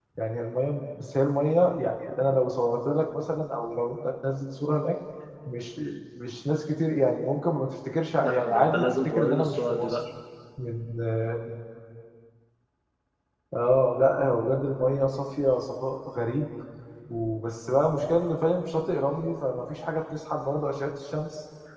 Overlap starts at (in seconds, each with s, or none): 8.2 s